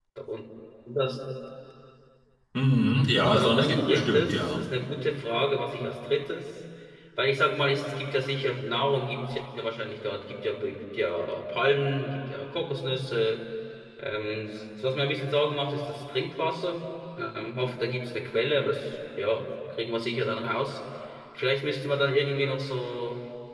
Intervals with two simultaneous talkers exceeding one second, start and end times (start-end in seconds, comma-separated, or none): 3.2-4.6